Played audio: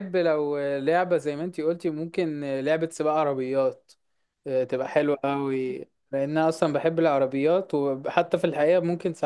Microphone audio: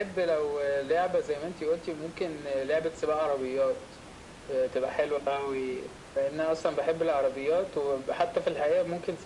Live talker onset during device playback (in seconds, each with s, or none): none